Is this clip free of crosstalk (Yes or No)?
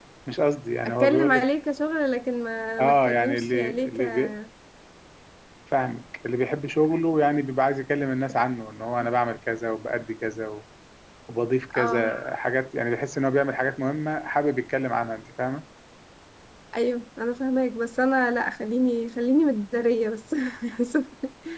No